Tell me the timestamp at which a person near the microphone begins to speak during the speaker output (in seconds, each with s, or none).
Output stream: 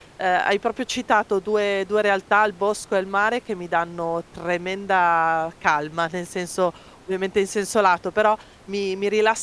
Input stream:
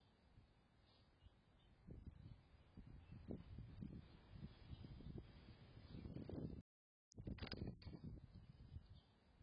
none